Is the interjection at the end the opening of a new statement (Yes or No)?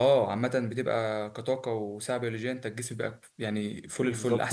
Yes